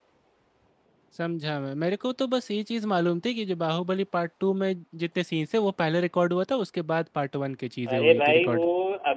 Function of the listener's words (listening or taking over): taking over